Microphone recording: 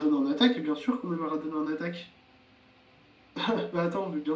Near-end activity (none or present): none